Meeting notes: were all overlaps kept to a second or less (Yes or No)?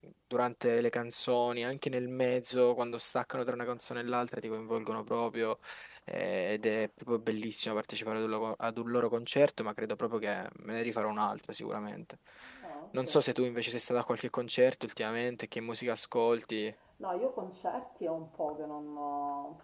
Yes